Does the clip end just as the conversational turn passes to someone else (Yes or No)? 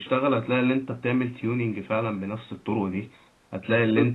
No